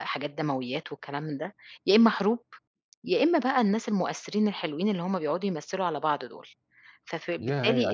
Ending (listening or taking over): taking over